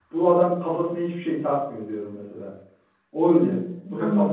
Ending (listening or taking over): taking over